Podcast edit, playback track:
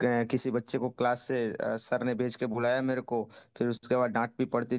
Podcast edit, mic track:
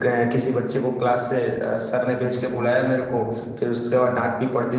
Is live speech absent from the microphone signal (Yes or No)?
No